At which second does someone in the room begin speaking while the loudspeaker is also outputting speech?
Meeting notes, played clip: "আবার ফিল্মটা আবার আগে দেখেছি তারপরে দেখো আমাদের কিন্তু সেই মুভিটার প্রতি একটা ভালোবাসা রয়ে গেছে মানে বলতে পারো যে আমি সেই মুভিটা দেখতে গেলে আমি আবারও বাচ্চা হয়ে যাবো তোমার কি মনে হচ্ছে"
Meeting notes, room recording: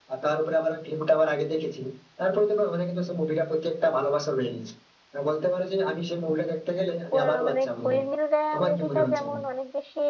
7.0 s

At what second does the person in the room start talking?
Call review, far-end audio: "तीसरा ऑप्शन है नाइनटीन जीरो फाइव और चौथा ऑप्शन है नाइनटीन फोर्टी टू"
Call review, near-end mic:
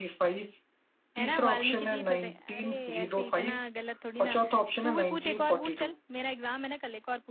1.2 s

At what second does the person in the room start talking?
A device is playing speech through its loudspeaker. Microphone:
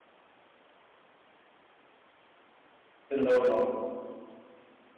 3.1 s

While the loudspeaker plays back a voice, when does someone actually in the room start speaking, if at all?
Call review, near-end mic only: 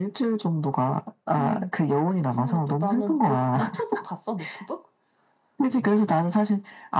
none

